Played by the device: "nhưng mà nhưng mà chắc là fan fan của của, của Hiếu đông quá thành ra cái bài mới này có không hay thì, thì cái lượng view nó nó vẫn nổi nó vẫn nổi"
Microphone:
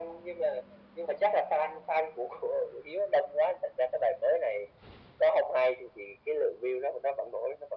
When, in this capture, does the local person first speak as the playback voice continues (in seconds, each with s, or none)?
none